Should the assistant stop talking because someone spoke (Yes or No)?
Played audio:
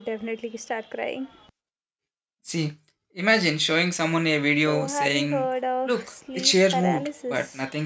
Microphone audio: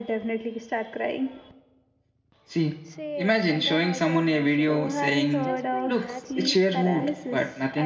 Yes